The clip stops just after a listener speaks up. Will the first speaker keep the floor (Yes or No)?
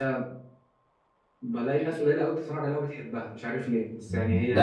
No